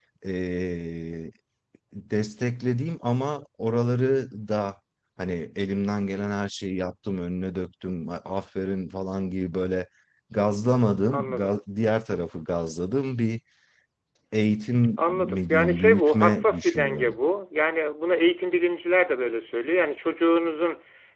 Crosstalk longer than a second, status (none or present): present